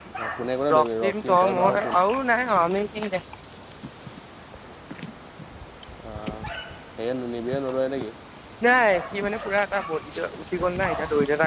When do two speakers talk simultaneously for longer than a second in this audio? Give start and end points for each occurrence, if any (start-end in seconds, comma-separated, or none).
0.7-1.9